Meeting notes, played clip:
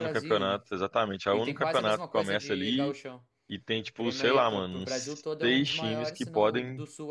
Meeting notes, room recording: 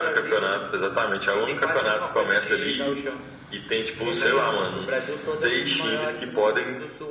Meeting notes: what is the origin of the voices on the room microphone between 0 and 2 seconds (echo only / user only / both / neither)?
echo only